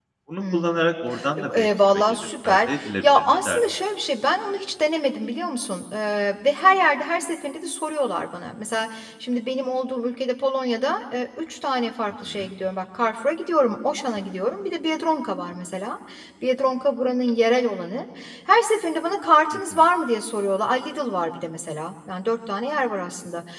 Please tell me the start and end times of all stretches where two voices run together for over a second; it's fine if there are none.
1.4-3.6

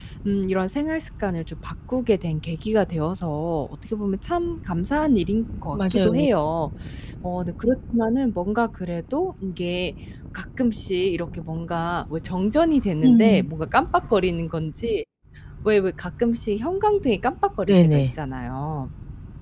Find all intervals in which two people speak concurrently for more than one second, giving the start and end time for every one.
none

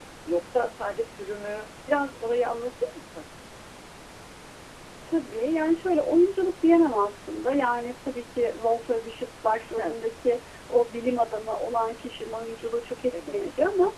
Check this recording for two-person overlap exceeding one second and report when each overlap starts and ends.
none

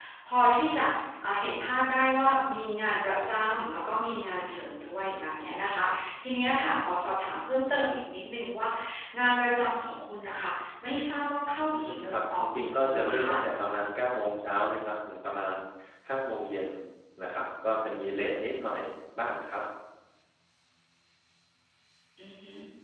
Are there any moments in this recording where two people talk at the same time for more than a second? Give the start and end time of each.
11.6-13.3

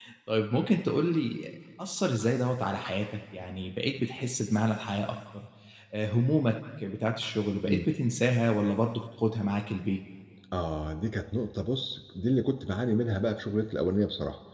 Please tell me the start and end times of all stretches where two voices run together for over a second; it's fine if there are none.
none

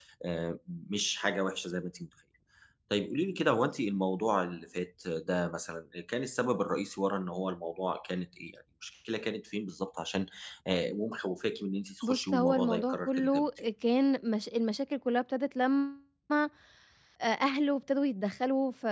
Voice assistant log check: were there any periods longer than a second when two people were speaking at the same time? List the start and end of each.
12.0-13.7

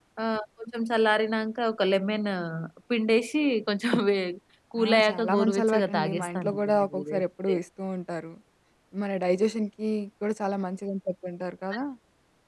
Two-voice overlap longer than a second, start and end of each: 4.8-7.6

